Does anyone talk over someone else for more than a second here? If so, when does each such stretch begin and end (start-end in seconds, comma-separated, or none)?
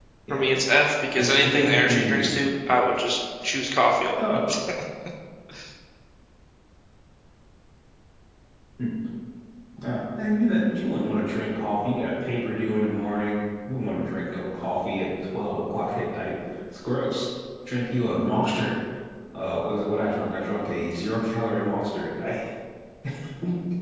1.2-2.4